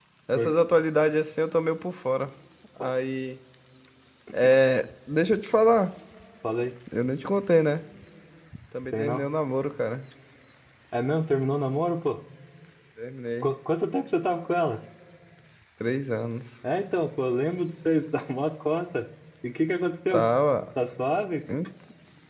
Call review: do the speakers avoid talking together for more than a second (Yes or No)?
Yes